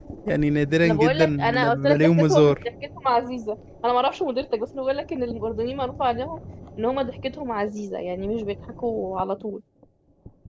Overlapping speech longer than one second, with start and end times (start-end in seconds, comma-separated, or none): 0.8-2.6